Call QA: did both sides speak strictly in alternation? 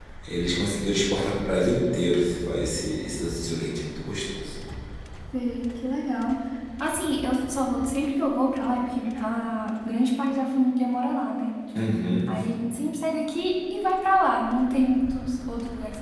Yes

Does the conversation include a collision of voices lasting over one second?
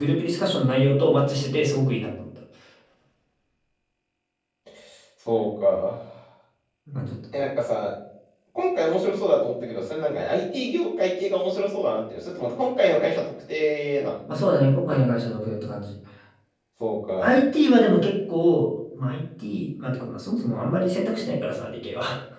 No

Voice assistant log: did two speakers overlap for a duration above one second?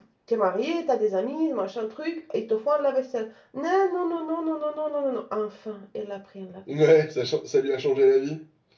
No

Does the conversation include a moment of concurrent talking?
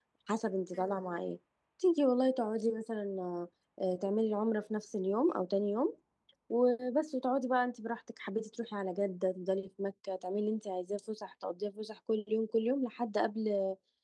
No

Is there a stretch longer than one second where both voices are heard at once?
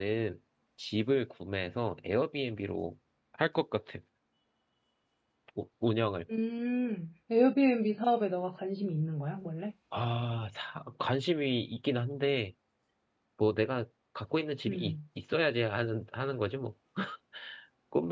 No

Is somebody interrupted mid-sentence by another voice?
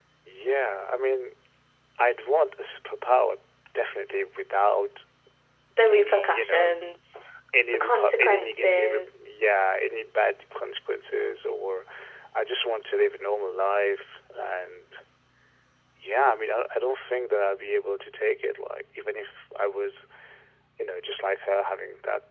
Yes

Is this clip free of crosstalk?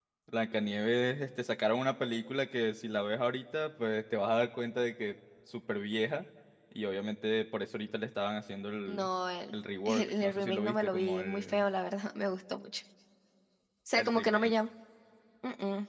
No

